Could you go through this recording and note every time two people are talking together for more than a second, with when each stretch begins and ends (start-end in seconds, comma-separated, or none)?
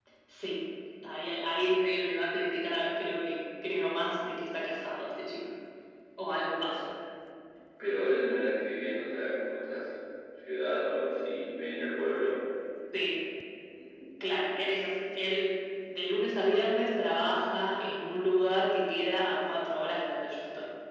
none